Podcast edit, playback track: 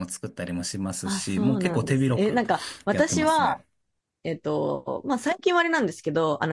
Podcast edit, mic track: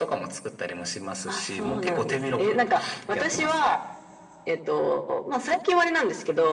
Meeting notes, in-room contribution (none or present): none